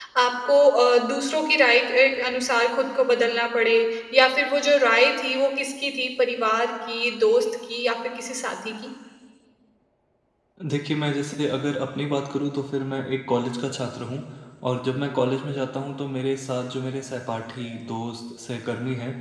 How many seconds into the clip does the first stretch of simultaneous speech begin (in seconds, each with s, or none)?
none